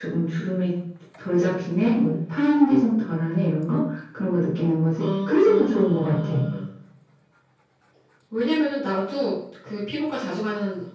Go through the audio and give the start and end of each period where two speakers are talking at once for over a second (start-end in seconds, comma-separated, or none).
5.0-6.3